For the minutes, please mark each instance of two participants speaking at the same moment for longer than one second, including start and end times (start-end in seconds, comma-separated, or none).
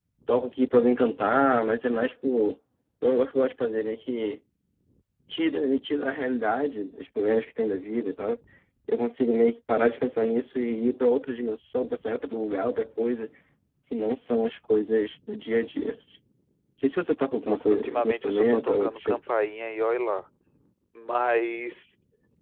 17.4-19.2